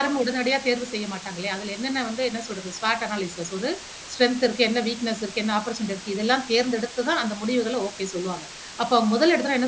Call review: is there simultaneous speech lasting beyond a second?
No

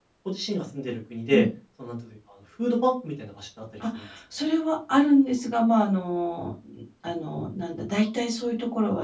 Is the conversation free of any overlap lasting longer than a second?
Yes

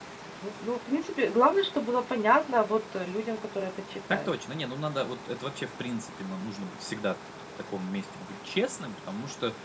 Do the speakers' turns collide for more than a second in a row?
No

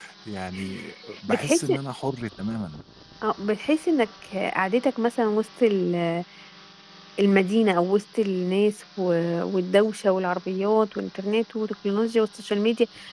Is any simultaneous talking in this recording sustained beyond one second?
No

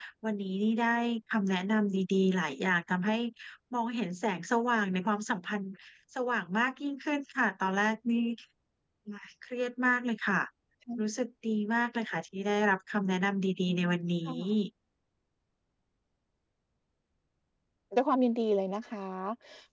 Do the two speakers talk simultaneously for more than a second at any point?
No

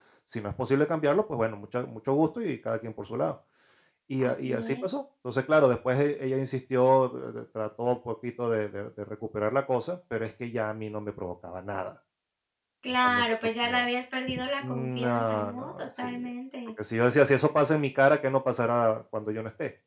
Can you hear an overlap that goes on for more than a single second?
Yes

